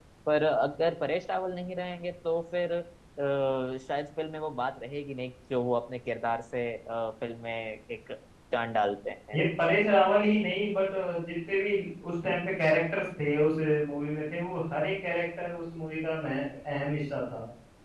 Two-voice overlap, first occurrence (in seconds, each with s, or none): none